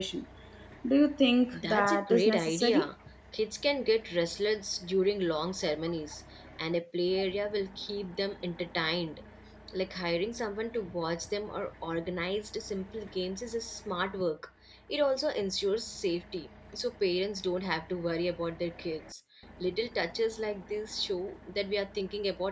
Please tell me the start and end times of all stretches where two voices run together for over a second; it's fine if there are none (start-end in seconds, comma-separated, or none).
1.5-2.8